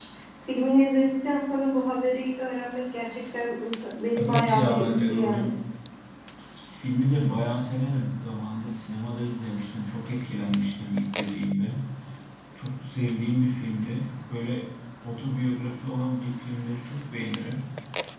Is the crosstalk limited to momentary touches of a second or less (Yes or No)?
No